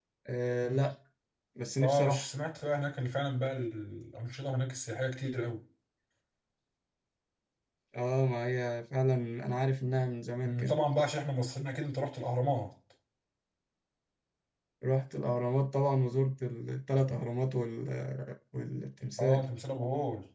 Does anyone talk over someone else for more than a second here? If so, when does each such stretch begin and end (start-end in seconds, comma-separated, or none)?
none